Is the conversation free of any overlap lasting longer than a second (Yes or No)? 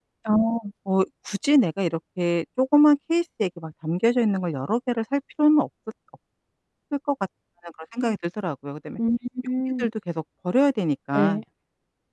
Yes